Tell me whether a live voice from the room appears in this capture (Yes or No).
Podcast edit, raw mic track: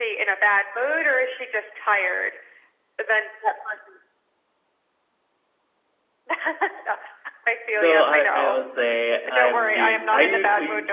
Yes